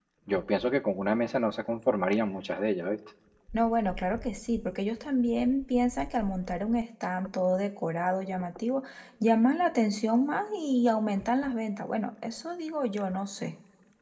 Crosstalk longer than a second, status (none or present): none